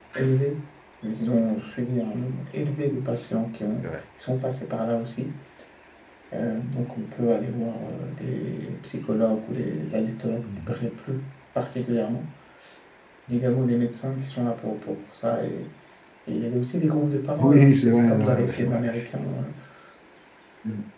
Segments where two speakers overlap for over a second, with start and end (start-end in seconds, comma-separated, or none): 17.4-18.9